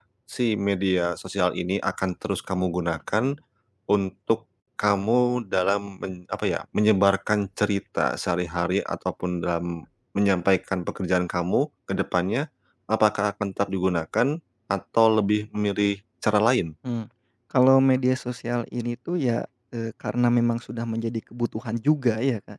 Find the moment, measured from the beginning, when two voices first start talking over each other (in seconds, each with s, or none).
none